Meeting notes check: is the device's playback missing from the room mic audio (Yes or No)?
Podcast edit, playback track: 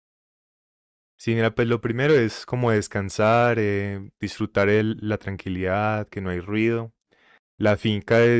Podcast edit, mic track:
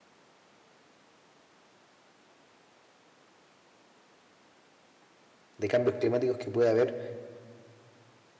Yes